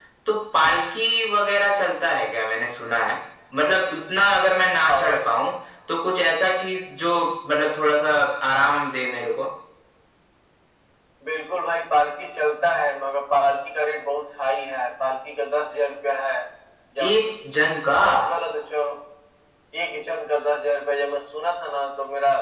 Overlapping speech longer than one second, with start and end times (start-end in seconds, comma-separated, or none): none